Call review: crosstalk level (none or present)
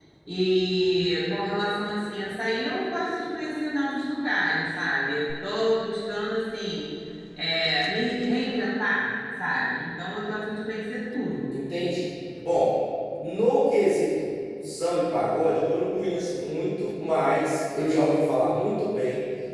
none